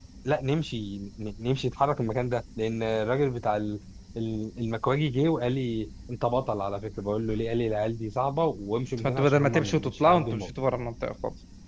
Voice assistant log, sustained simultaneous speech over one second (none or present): present